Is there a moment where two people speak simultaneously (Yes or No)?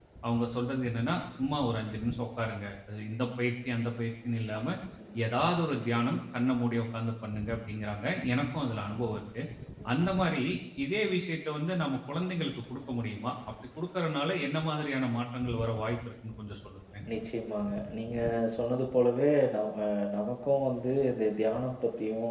No